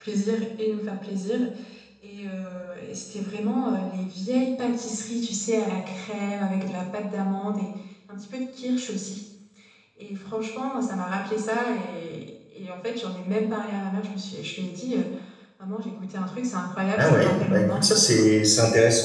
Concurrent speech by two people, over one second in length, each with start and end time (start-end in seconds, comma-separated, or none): 17.0-18.3